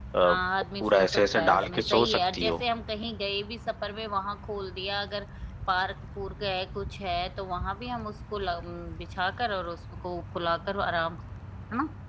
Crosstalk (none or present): present